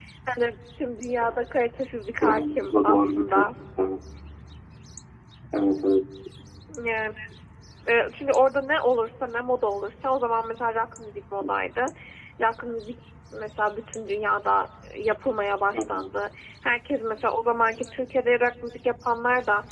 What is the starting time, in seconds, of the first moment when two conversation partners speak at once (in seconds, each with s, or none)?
2.2 s